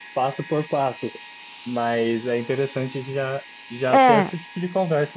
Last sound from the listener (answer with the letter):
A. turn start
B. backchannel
B